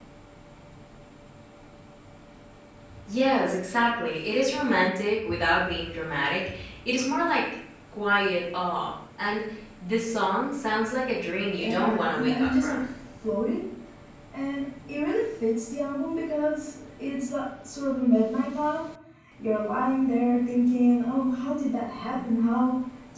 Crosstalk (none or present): present